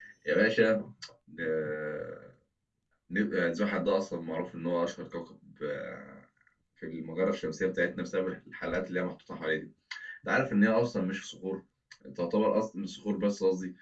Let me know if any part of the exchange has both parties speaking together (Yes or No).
No